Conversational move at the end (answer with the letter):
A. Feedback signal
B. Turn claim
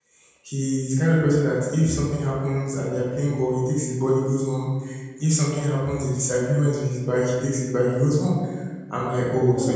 A